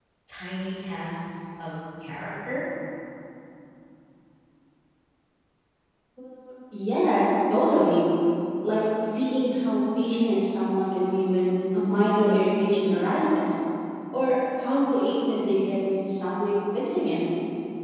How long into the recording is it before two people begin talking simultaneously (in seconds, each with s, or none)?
none